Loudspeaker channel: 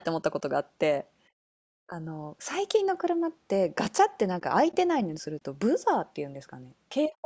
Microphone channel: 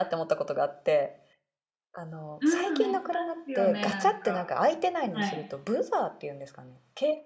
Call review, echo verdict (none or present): present